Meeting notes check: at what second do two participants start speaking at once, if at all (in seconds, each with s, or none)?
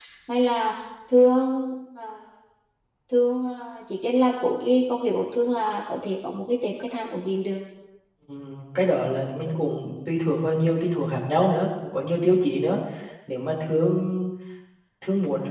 none